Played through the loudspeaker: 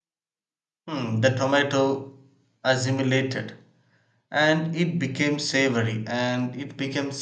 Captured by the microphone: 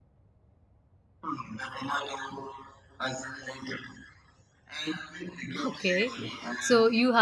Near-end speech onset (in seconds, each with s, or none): 5.6 s